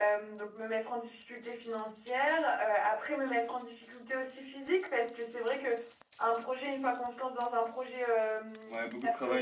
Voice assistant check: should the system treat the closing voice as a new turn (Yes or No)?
Yes